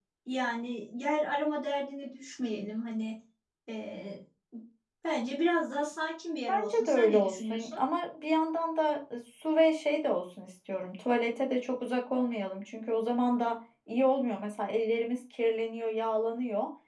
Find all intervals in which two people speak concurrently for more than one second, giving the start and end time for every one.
6.5-7.8

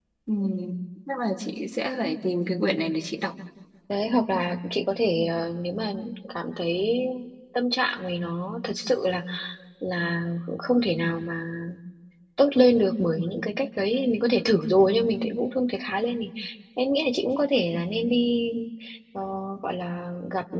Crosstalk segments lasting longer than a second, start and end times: none

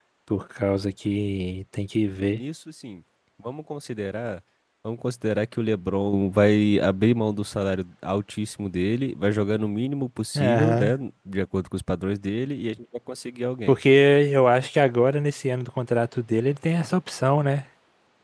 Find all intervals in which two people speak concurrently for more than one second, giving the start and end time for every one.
none

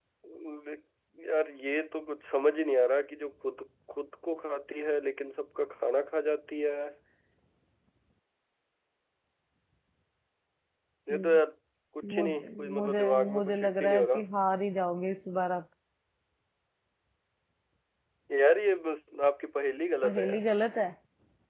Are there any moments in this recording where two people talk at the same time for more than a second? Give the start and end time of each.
12.1-14.2

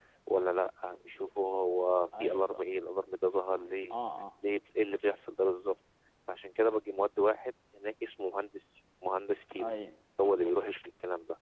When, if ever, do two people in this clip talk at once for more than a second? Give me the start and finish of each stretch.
none

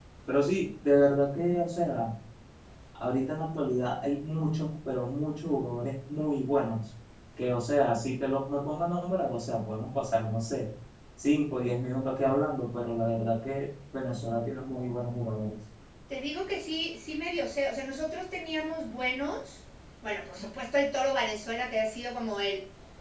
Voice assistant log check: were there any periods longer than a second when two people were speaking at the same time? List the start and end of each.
none

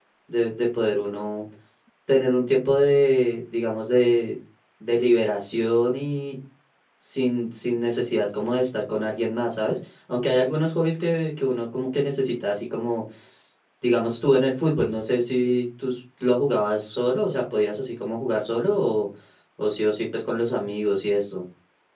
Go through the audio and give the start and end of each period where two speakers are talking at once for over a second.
none

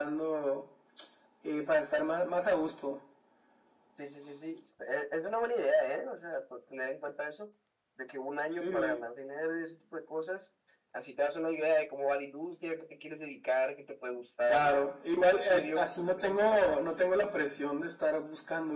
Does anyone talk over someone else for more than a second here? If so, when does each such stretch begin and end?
15.3-16.8

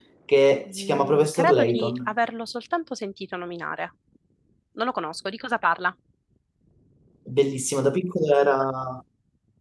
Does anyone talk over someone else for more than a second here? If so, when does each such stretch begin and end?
0.7-2.1

